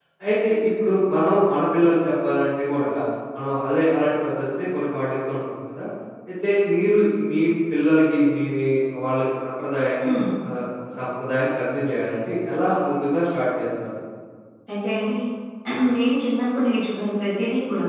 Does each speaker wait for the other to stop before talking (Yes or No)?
Yes